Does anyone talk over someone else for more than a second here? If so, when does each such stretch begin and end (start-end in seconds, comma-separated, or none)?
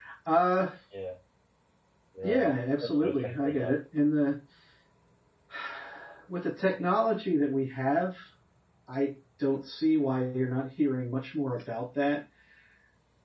2.2-3.7